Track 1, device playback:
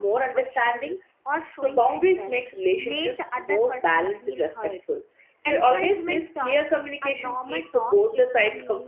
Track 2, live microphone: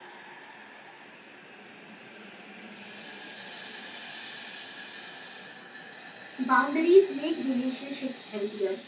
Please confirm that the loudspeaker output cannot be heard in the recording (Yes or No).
Yes